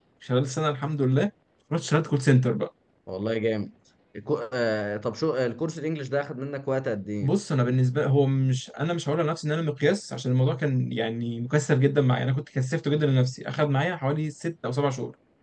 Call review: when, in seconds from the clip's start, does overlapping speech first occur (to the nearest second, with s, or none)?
none